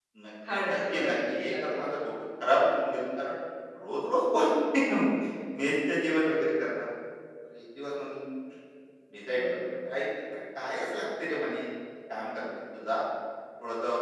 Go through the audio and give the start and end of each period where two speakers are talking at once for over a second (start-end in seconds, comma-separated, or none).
0.6-1.9